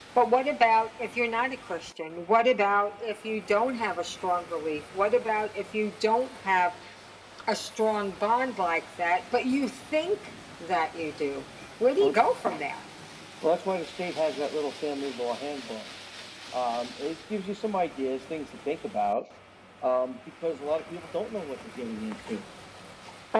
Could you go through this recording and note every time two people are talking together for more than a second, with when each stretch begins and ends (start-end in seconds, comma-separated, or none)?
none